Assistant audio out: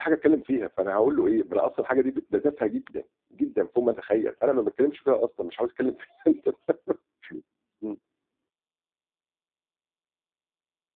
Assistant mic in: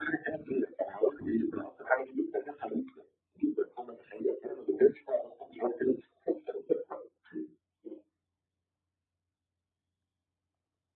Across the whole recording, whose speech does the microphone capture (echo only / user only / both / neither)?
echo only